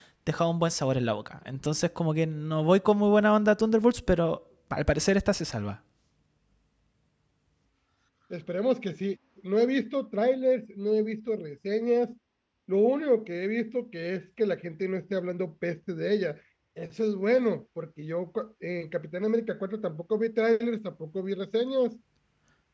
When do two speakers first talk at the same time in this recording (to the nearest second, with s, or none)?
none